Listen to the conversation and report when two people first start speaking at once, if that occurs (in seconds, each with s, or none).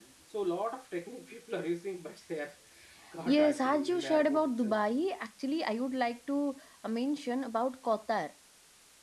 3.2 s